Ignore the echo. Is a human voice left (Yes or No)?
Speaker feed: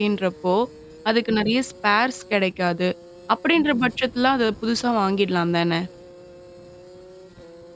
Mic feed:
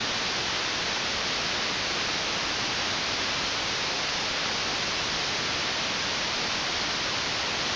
No